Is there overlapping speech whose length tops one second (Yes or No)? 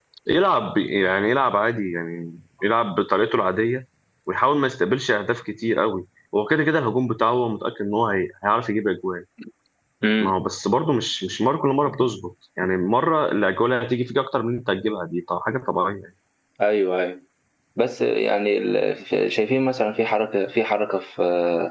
No